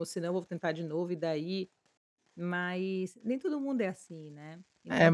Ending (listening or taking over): taking over